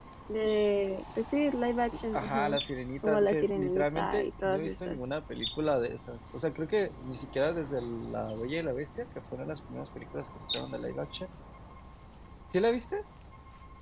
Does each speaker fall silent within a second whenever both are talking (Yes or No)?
No